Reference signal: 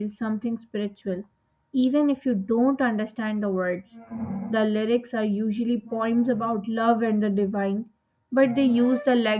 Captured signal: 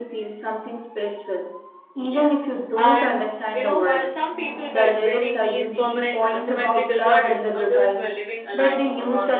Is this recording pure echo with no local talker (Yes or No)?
No